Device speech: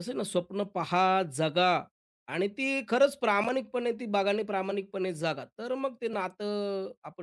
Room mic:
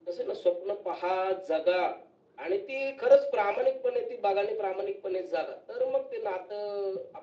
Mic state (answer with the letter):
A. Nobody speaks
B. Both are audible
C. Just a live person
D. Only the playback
D